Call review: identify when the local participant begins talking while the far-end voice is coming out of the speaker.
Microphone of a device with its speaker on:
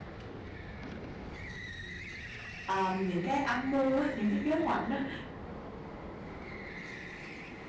2.6 s

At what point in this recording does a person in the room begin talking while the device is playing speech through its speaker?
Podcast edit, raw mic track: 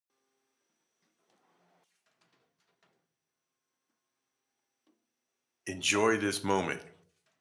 5.7 s

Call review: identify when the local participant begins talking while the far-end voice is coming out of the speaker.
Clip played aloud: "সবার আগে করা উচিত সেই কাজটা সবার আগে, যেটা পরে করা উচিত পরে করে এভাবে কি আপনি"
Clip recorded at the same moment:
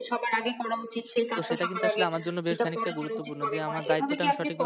1.4 s

